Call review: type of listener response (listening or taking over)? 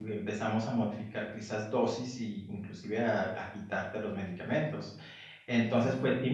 listening